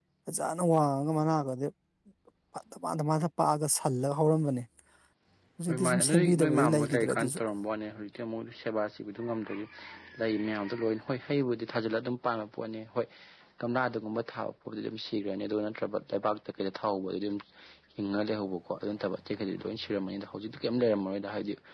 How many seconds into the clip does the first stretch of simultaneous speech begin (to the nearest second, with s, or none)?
6 s